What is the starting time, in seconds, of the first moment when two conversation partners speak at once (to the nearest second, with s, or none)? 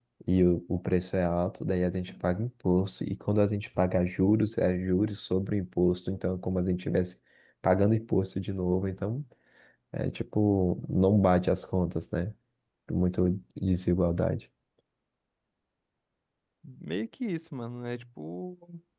none